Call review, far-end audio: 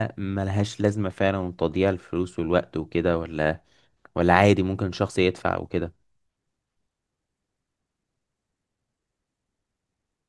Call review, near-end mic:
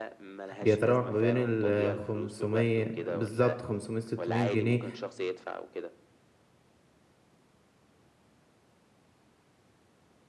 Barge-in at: 0.6 s

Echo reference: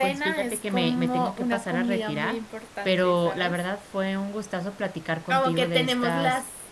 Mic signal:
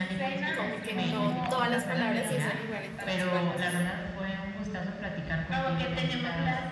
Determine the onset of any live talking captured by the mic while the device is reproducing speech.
0.5 s

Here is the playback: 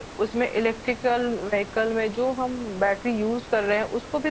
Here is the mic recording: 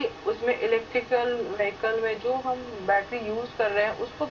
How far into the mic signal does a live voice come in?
none

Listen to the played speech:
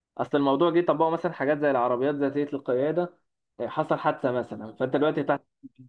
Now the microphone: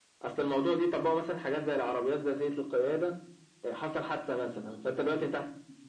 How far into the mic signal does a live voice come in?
none

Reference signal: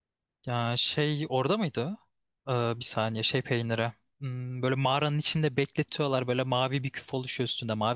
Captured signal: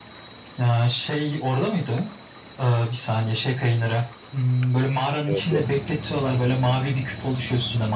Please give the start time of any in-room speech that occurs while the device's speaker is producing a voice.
5.2 s

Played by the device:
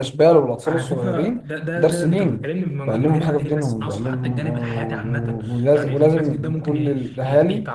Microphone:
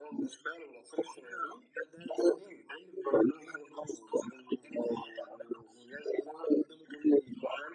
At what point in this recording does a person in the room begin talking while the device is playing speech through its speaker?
none

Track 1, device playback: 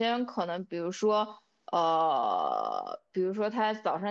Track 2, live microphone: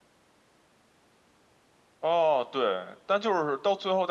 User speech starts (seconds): 2.0 s

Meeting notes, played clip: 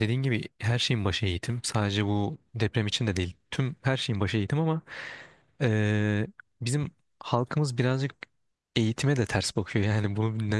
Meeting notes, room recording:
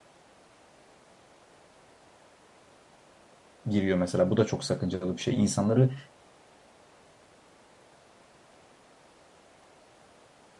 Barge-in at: 3.6 s

